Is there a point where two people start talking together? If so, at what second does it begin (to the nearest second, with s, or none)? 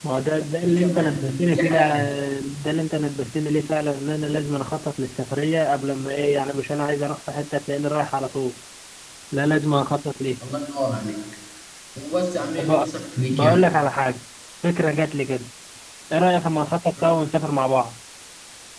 1 s